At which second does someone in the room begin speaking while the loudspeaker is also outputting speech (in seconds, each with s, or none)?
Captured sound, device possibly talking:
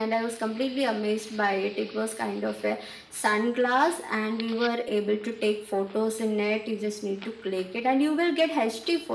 none